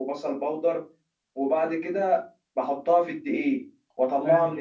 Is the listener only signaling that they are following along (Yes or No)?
Yes